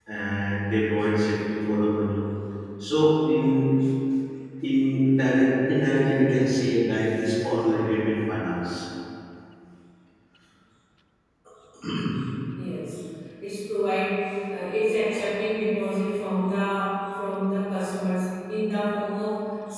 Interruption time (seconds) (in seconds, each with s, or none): none